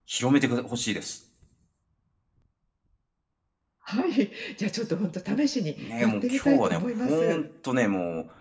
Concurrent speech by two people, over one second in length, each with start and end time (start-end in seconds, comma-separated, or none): 5.8-7.4